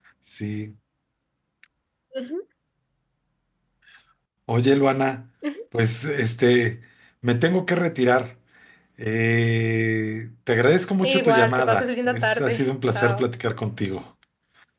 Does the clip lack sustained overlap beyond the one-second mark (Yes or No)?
No